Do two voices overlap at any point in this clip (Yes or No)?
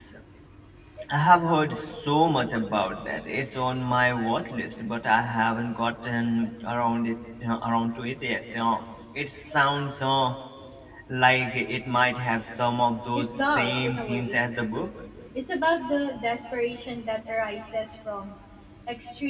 Yes